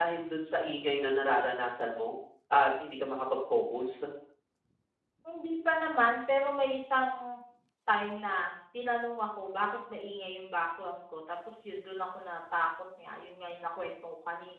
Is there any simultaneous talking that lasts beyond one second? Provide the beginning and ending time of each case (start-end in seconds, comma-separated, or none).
none